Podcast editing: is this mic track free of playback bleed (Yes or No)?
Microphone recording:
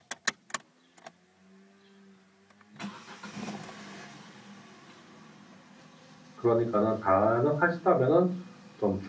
Yes